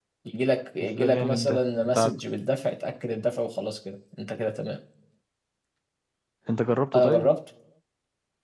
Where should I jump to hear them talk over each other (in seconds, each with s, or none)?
1.0 s